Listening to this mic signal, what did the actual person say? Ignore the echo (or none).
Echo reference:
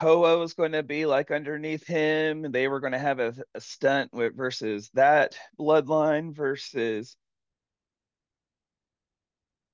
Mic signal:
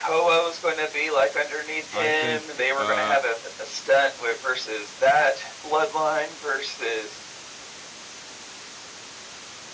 I think uh